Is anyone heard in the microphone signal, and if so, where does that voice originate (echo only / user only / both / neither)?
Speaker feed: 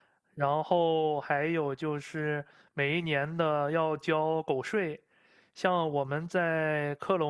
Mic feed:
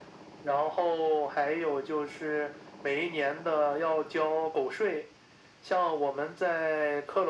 echo only